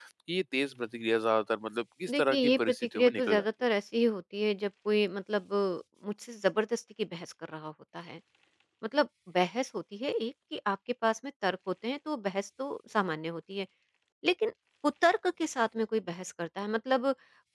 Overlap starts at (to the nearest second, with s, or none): 2 s